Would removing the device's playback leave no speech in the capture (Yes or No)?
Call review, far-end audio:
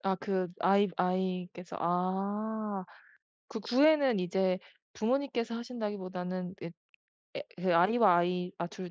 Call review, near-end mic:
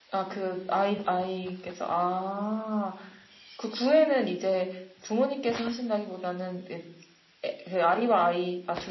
Yes